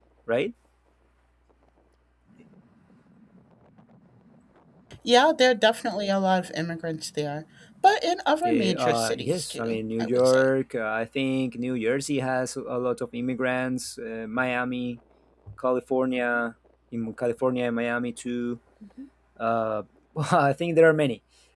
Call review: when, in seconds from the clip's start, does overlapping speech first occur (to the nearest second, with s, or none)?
8 s